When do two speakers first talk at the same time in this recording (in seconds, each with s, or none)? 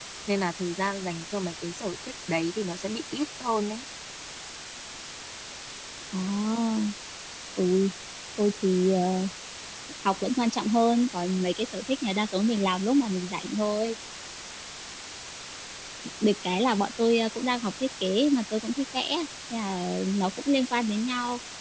none